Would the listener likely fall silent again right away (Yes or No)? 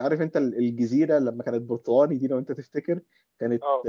Yes